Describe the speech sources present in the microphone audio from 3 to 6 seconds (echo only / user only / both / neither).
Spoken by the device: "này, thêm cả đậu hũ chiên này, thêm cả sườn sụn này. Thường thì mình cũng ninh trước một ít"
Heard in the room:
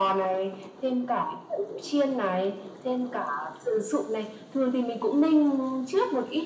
echo only